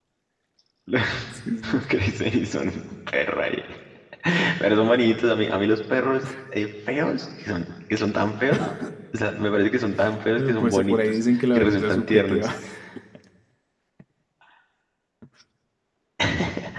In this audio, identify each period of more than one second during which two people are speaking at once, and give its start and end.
10.4-12.5

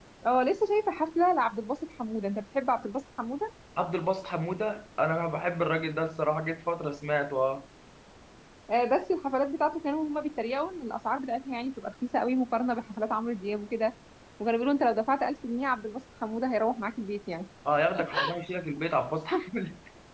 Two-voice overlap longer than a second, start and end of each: none

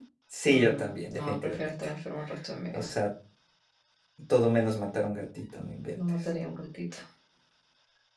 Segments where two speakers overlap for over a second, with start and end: 0.5-1.7

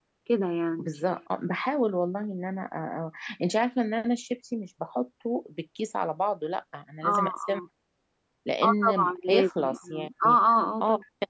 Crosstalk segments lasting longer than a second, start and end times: 8.6-10.4

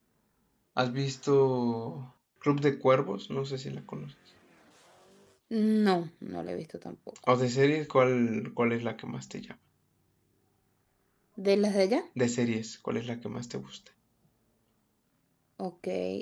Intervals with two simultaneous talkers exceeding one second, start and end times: none

